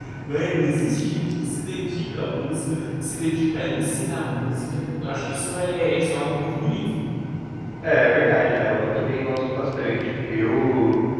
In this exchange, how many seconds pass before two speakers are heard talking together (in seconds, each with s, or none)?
none